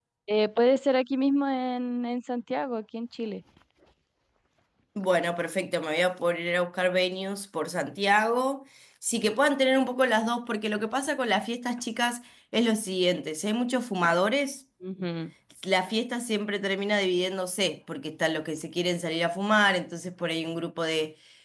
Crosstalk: none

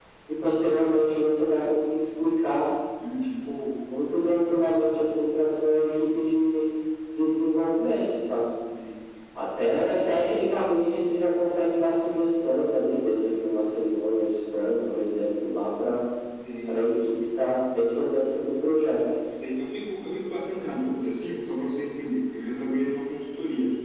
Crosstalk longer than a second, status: none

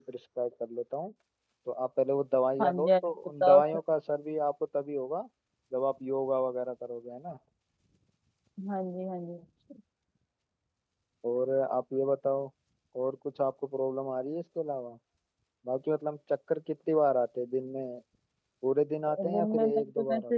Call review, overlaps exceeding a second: present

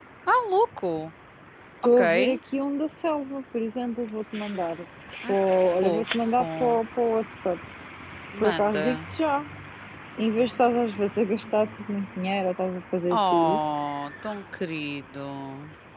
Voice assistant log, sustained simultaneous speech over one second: present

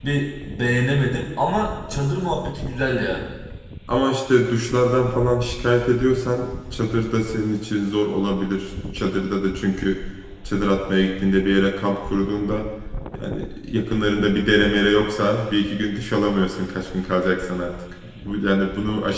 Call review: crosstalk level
none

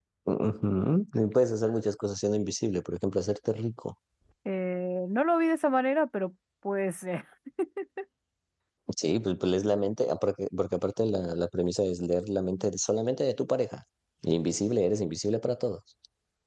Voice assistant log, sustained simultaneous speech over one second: none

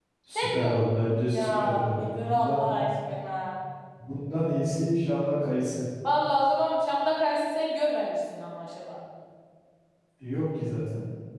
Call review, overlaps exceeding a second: present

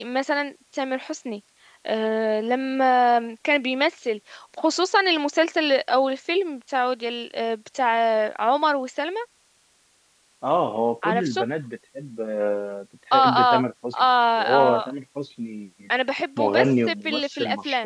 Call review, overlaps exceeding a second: present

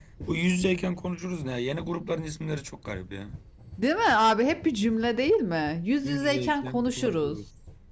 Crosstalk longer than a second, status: present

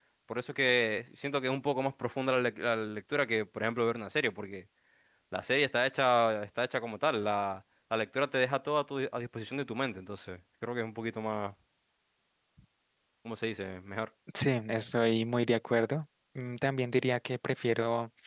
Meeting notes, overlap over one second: none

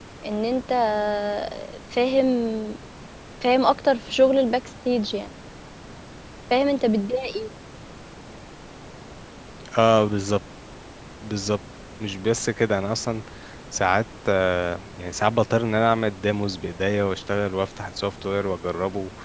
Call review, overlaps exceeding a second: none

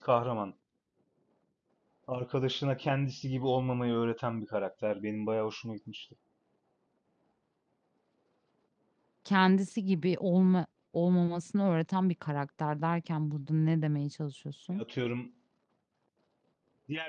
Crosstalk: none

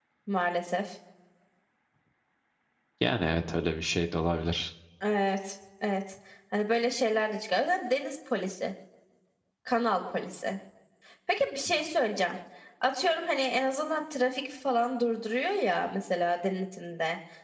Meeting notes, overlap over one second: none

